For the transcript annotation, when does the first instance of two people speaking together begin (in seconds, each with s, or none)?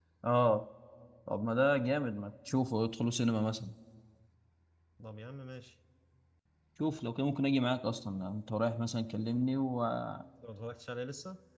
none